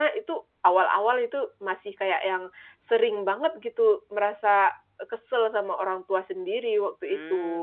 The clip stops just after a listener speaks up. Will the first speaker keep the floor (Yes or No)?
No